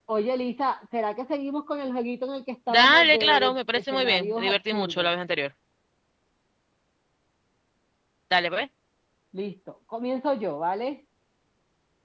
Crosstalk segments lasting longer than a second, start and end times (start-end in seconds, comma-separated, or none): 2.7-5.1